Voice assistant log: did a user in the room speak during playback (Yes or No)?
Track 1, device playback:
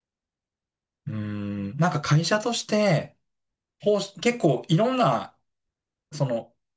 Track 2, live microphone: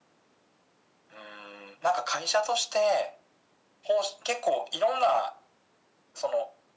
No